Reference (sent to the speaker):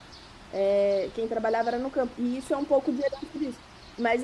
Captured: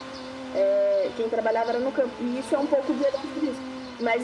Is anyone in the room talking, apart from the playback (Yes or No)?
No